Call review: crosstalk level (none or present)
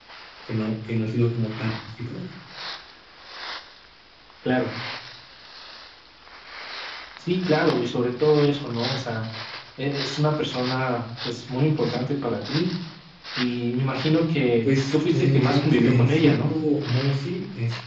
present